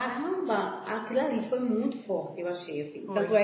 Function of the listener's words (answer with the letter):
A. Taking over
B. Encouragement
B